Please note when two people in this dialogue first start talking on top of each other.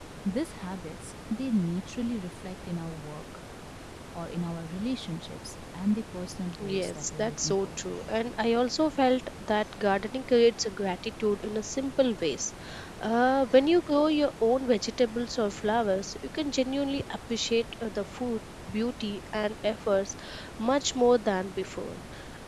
6.6 s

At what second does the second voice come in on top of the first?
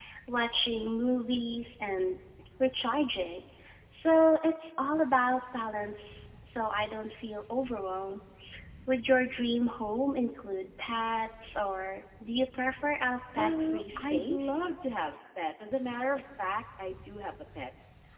13.3 s

